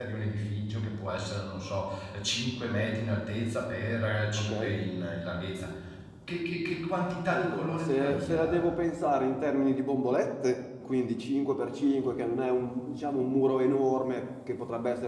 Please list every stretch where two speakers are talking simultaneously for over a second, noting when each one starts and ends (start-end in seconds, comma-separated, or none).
7.3-8.8